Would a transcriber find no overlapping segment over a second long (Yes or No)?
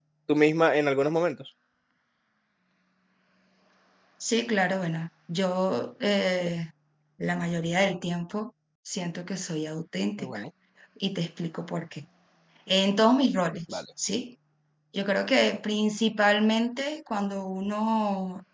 Yes